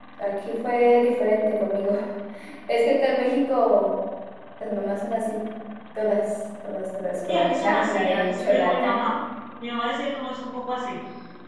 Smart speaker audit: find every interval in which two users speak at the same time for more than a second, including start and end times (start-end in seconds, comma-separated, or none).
7.3-9.1